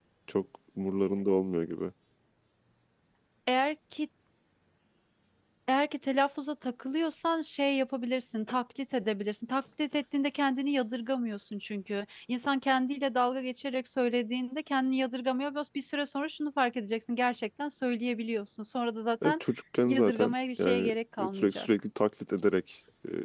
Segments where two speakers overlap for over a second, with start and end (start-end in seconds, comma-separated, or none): 19.9-21.7